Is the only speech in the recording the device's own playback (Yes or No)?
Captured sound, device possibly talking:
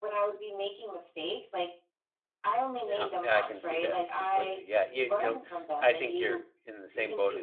No